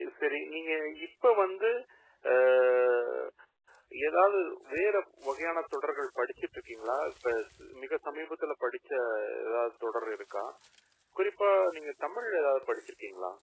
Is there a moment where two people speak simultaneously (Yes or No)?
No